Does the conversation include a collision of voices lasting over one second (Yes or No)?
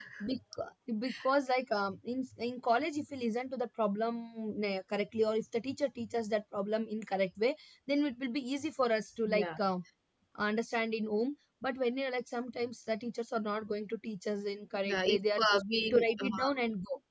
Yes